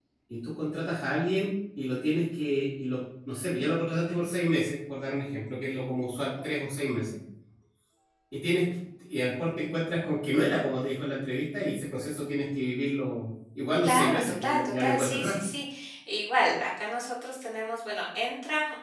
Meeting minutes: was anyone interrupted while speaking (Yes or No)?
Yes